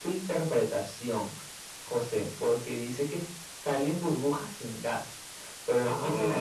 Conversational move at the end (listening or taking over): listening